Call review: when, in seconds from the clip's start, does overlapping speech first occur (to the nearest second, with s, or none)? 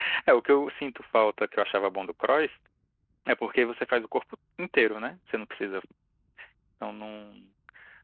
none